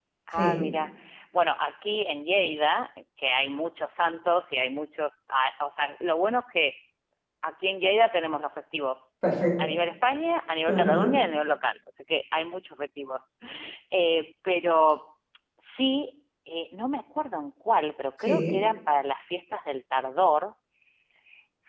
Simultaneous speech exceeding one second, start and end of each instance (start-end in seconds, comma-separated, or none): none